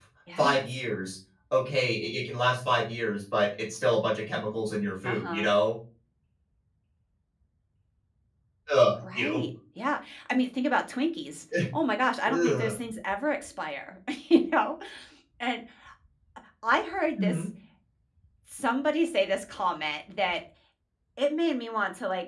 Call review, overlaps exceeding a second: none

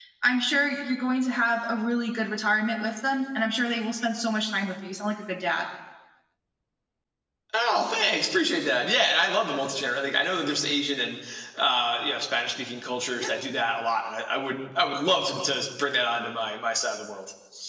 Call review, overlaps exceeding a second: none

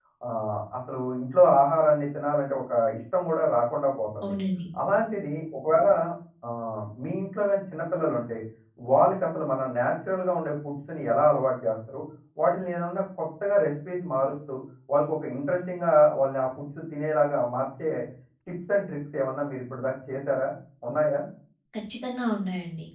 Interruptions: none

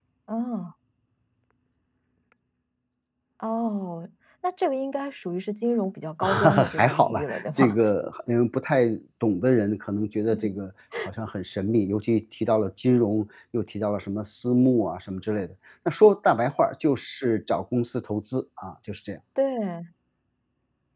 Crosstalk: present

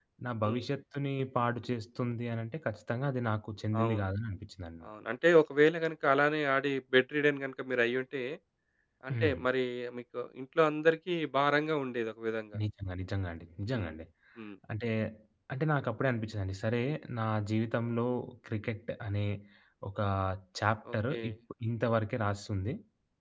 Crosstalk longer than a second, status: none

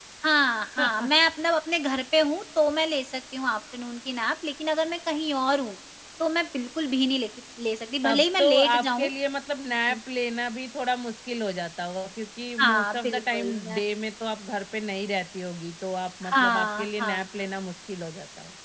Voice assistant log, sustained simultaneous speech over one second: present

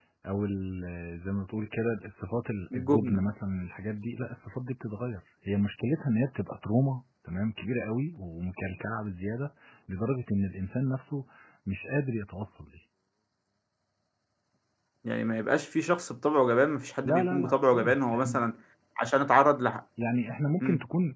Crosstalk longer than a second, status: present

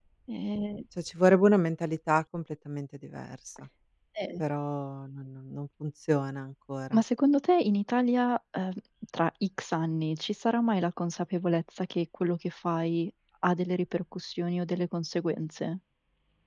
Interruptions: none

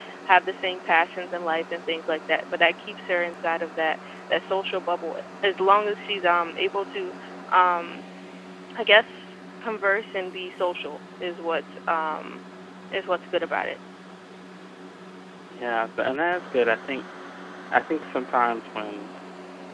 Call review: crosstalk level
none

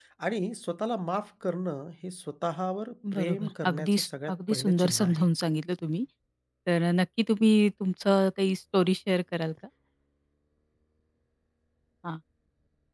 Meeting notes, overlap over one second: present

